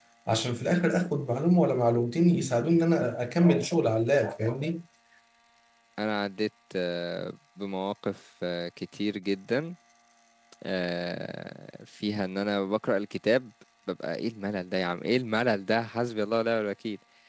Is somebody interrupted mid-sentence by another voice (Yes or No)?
No